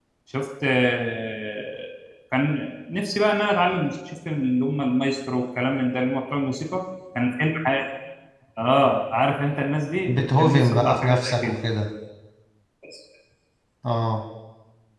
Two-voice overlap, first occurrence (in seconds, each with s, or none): 10.1 s